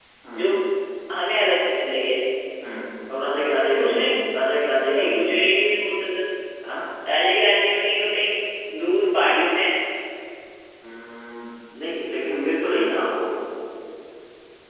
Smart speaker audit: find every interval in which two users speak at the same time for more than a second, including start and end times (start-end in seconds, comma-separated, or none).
none